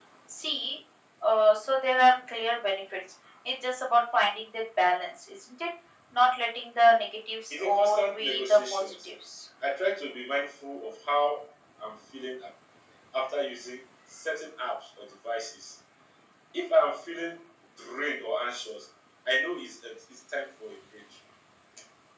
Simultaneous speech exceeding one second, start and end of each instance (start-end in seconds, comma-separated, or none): 7.5-9.1